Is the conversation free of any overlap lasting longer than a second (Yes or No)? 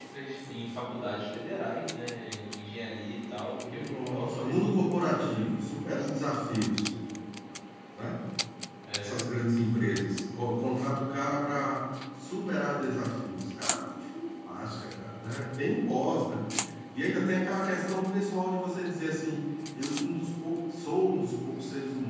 No